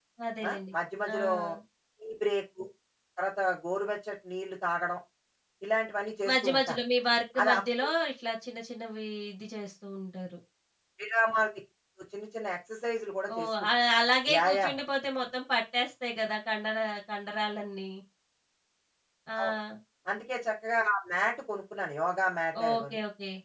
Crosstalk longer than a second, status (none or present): none